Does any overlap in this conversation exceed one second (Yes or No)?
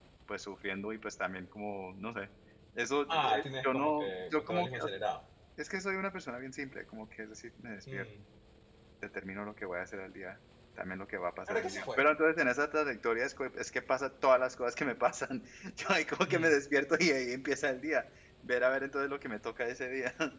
Yes